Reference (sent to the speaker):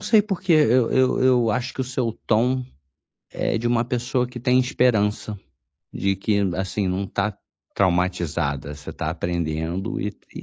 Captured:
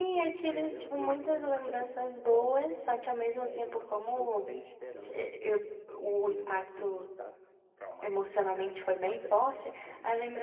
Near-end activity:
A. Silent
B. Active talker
B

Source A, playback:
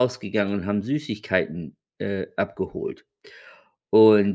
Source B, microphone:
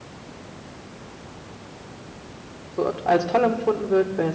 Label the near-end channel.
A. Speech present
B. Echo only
A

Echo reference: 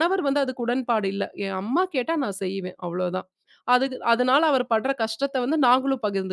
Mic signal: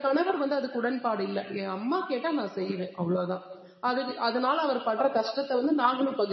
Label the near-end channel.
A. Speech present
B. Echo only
B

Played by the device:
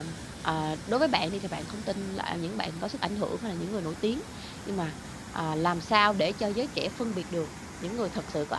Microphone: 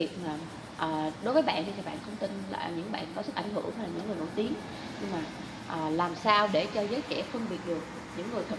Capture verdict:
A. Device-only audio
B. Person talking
A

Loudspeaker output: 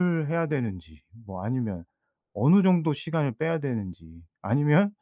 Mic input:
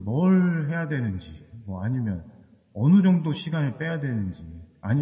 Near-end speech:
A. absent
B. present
A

